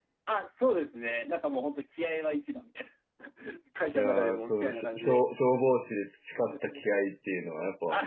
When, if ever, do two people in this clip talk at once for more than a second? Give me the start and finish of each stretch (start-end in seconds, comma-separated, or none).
3.9-5.2